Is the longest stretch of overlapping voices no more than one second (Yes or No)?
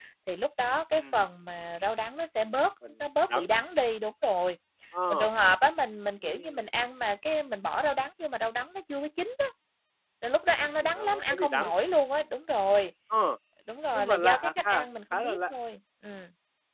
No